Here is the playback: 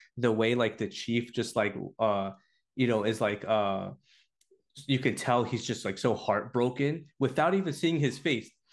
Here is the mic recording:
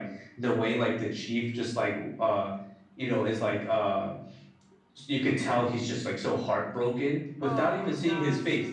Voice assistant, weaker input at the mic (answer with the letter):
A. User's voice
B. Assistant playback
A